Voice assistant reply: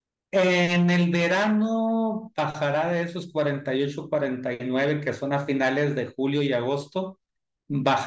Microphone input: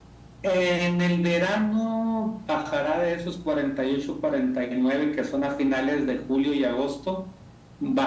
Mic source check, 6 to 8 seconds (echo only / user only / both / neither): echo only